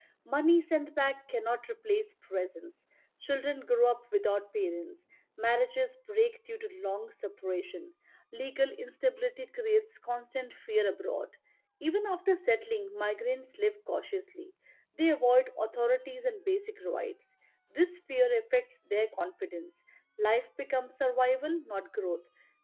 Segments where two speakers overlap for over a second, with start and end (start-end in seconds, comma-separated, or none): none